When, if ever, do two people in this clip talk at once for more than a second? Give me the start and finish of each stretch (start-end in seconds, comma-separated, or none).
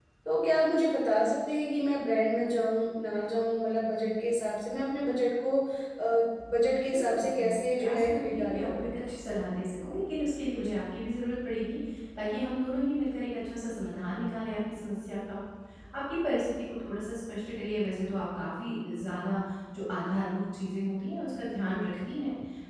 6.8-8.9